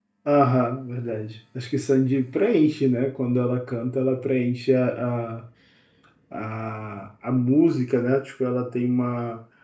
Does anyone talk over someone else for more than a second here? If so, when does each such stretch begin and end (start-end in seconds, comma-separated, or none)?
none